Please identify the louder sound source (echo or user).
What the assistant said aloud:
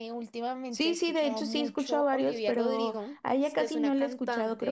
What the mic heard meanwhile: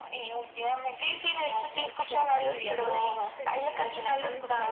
echo